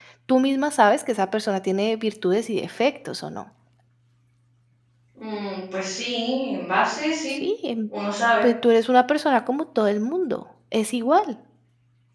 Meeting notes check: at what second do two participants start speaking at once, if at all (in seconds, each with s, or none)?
none